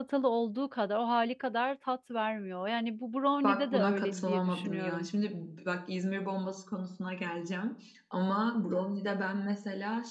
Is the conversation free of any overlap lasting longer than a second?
No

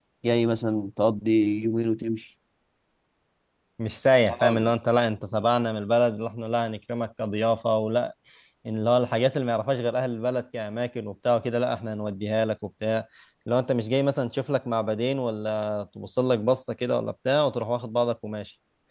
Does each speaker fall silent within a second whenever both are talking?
Yes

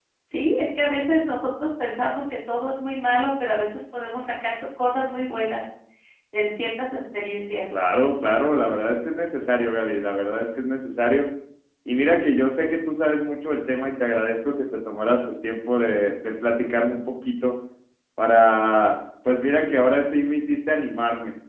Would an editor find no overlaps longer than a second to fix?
Yes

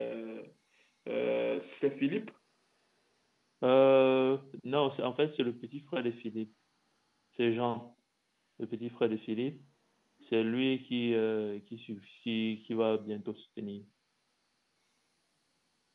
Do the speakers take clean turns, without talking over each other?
Yes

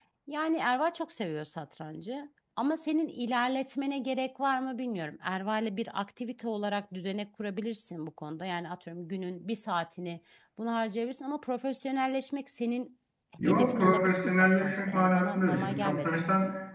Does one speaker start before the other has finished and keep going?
Yes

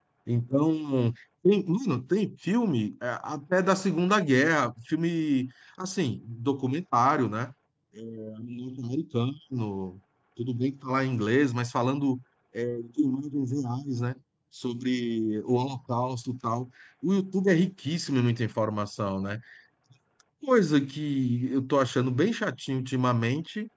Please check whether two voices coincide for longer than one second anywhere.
No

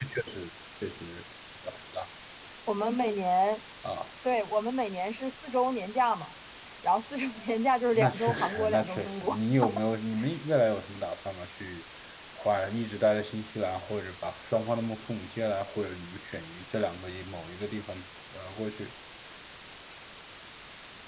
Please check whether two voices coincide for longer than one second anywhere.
Yes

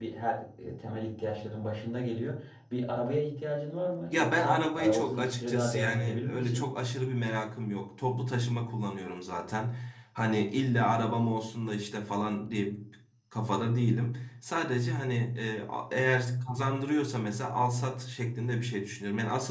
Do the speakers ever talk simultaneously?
Yes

